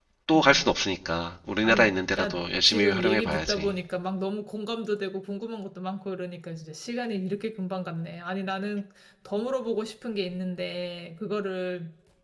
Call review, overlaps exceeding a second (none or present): present